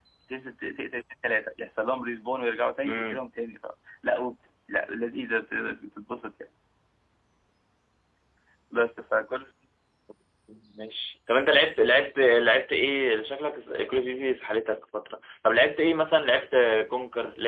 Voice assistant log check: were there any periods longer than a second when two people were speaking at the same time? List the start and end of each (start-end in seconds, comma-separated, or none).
none